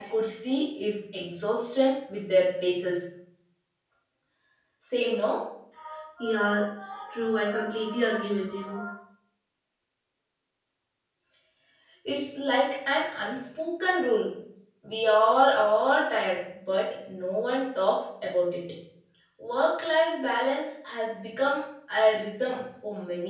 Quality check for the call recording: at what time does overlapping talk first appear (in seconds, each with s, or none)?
none